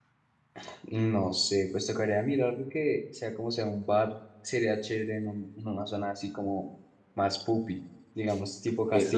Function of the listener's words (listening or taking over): taking over